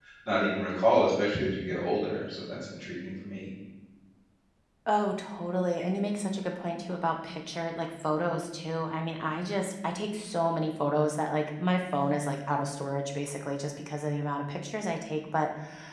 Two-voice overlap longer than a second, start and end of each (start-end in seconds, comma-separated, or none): none